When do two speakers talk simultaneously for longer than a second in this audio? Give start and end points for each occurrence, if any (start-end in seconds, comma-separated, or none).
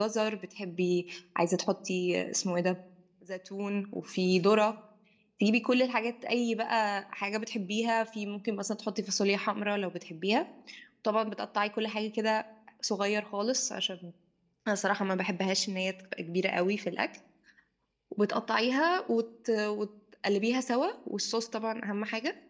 none